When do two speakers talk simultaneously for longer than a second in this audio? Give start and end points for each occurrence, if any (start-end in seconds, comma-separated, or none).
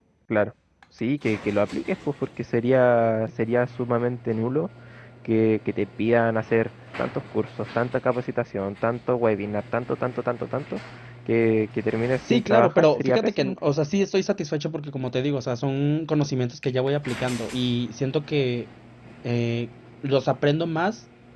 12.3-13.6